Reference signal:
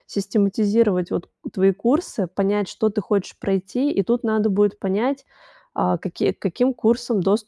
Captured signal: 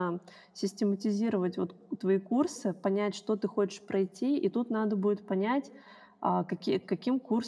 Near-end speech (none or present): none